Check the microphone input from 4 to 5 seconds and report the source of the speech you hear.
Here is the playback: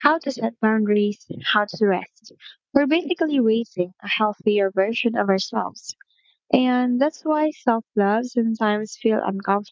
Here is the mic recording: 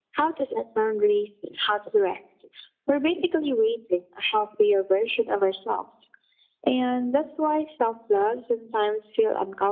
echo only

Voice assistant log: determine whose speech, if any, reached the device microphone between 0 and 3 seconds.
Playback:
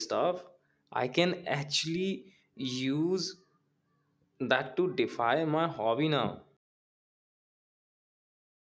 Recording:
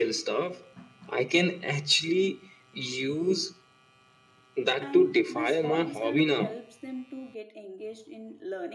echo only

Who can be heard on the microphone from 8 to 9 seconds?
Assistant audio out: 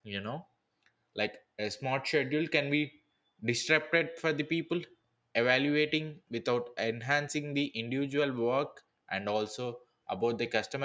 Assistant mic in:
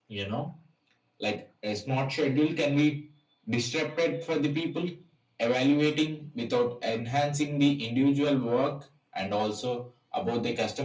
echo only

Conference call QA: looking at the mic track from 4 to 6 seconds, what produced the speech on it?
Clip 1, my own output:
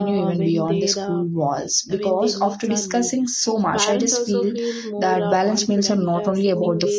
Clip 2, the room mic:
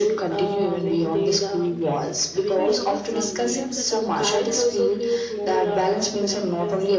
both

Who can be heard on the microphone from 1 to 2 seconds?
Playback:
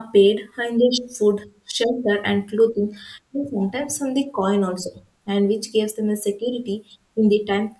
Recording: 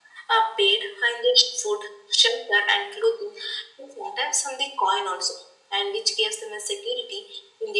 echo only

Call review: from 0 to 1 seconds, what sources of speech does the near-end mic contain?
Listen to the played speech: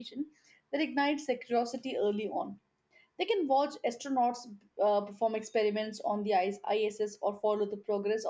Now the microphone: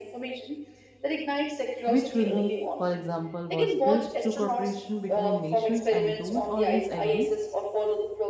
echo only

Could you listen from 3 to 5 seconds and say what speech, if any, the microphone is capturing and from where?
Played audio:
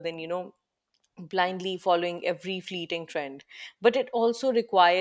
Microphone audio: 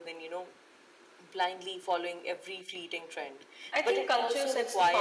both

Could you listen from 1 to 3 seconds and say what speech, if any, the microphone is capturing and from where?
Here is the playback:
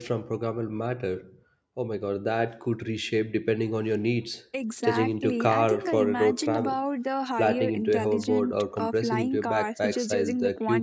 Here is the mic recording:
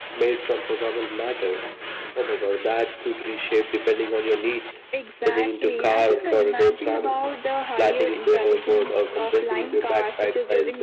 echo only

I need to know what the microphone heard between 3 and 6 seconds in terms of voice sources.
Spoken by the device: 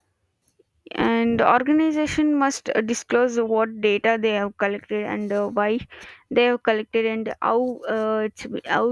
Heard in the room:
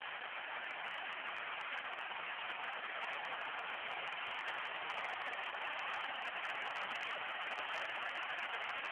neither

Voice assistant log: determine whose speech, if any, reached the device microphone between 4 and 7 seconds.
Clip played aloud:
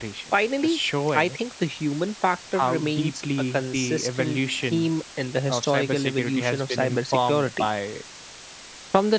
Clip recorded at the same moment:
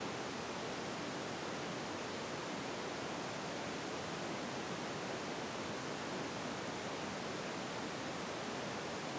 neither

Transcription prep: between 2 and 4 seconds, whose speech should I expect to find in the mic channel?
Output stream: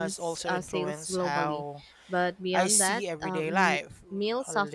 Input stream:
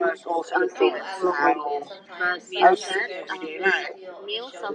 both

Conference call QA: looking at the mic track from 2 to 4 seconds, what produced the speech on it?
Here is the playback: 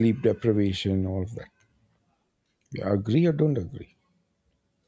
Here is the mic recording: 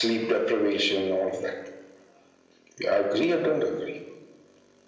echo only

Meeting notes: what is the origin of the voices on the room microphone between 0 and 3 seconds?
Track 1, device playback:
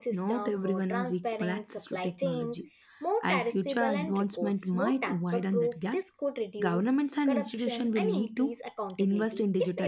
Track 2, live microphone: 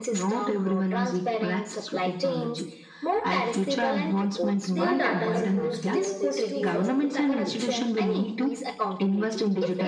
echo only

